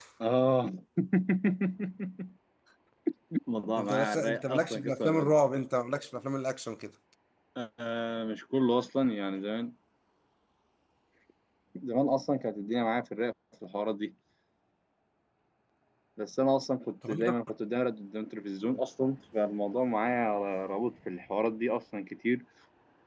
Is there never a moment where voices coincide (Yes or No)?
No